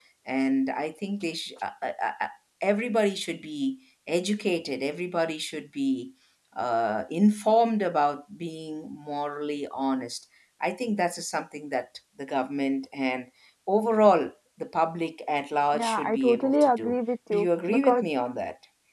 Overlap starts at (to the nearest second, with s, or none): 16 s